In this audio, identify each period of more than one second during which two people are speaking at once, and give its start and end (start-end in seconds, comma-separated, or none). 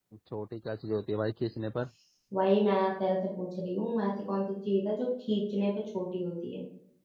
none